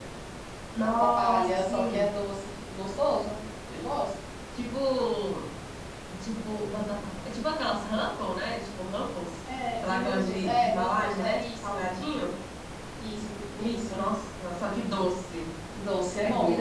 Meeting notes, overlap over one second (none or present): present